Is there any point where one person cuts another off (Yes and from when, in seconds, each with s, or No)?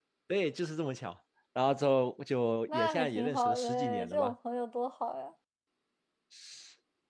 Yes, from 2.7 s